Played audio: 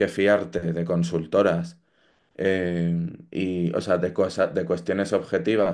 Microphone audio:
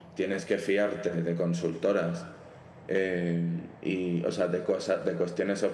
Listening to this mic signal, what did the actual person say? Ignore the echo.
none

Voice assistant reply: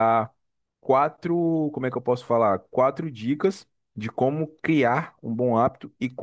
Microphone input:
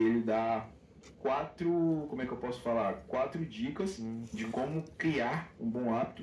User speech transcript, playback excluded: Uhum.

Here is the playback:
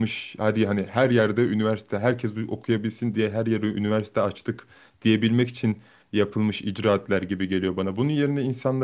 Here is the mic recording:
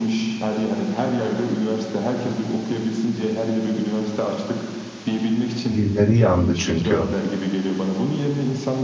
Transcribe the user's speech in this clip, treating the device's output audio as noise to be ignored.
dilleri yandı çünkü.

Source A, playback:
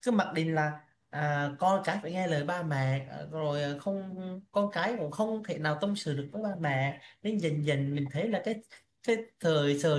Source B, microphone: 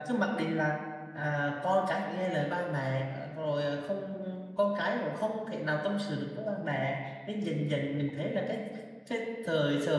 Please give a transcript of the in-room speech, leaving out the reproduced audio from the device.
none

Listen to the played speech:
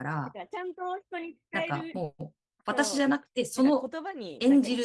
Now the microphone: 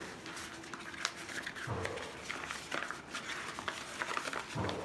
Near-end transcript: none

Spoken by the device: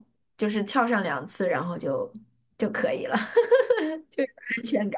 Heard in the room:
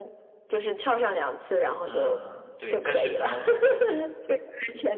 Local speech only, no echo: 嗯，对，但是可能

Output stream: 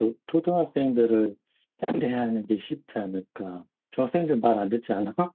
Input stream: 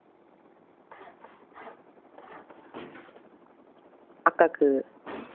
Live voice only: 아까 그

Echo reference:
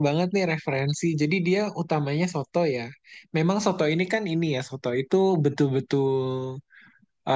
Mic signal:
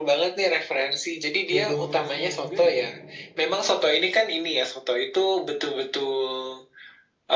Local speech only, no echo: dodol khasnya juga ya.

